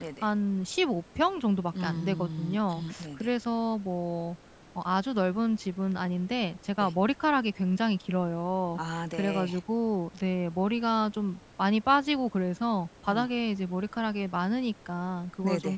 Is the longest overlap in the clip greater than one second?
Yes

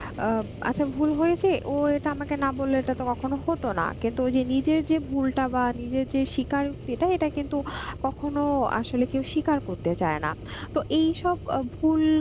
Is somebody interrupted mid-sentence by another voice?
No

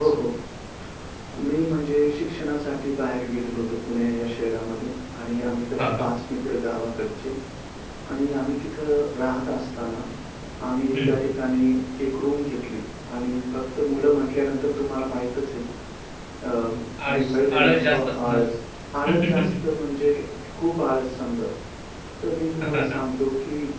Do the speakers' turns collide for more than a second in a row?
Yes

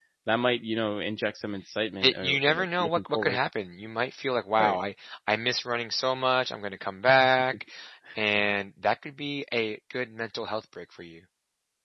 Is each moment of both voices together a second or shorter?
No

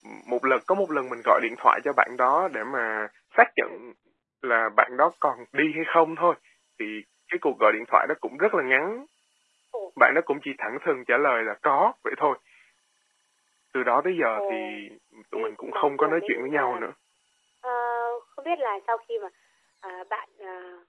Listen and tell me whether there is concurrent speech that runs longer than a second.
Yes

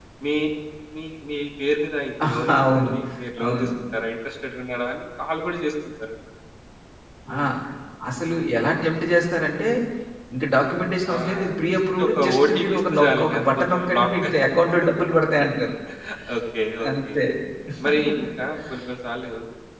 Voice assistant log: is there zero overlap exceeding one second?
No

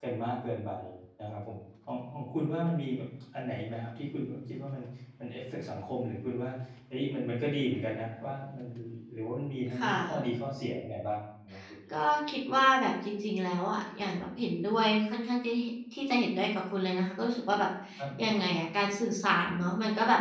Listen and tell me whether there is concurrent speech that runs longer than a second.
No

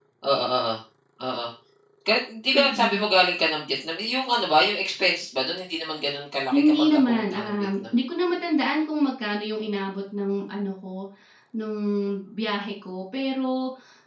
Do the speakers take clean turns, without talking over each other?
No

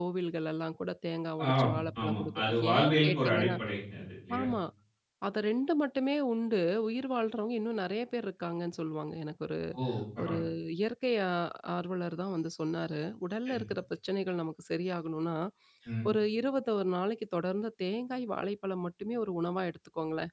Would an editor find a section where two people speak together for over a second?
Yes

